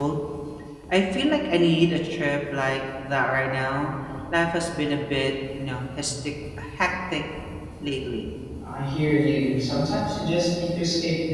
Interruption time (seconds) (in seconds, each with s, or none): none